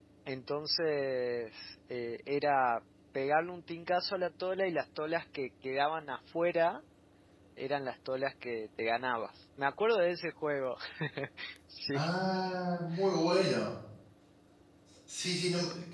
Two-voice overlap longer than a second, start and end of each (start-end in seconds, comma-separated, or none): none